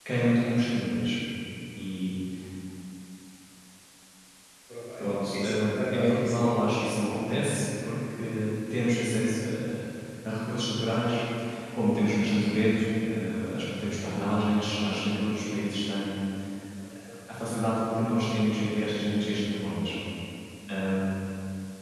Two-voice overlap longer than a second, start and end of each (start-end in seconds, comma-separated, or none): 5.0-6.6